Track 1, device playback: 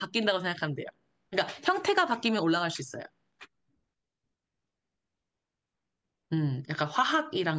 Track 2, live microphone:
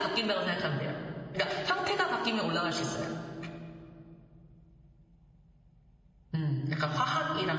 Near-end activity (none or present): none